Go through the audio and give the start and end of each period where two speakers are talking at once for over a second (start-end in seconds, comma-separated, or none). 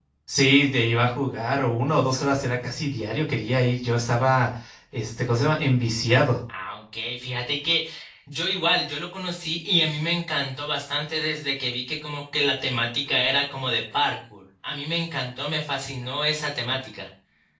none